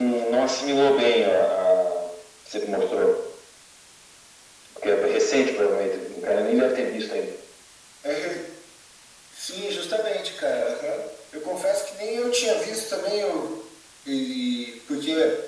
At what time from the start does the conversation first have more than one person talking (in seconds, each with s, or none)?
none